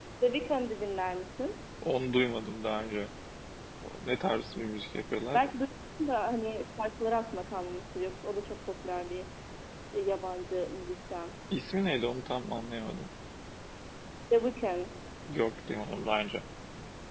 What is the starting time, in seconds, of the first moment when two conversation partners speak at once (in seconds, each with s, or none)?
none